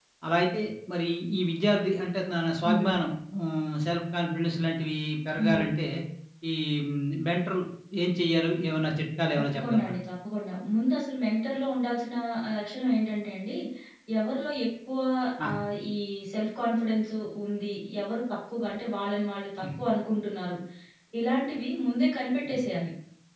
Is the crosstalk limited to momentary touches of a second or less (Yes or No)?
Yes